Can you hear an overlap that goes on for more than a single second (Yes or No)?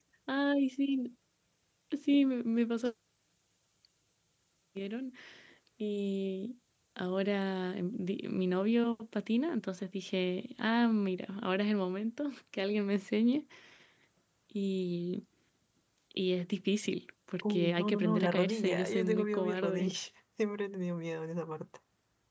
Yes